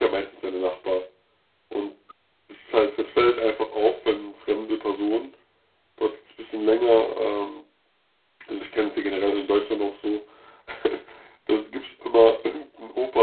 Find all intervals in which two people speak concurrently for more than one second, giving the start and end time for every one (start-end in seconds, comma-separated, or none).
none